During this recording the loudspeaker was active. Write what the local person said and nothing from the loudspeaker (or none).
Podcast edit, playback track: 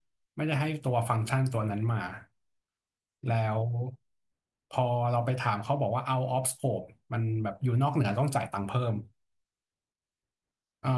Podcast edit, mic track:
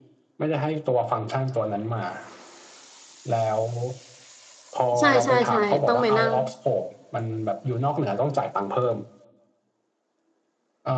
ใช่ใช่ใช่ต้องไปนั่ง